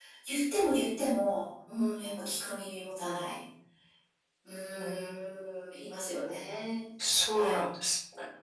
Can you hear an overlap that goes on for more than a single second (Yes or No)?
No